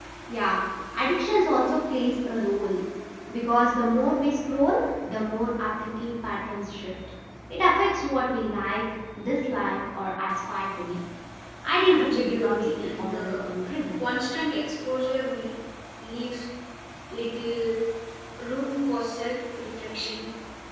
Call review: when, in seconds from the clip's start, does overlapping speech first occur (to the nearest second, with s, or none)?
12 s